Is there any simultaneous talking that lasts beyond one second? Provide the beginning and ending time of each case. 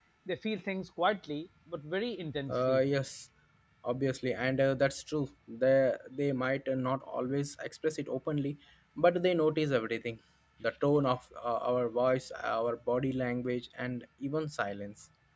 none

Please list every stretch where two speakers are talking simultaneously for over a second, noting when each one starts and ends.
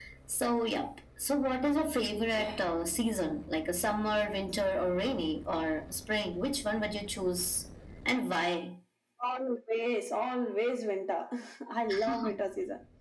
none

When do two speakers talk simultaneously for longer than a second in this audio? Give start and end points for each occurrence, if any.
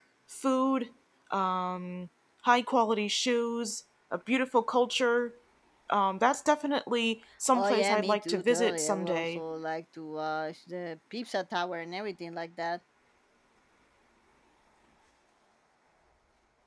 7.5-9.4

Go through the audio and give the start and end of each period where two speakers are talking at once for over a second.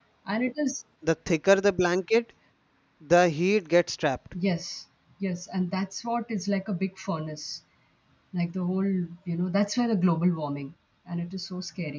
none

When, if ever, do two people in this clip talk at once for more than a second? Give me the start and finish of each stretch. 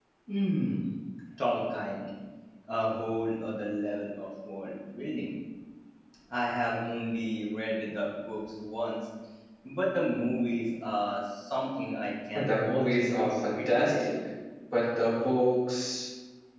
12.3-14.1

